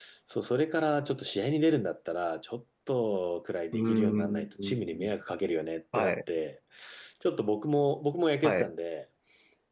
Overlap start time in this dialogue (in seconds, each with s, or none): 3.7 s